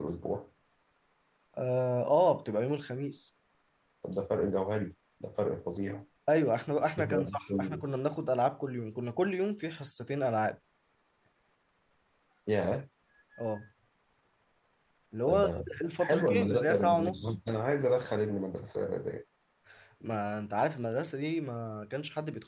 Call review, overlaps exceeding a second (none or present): present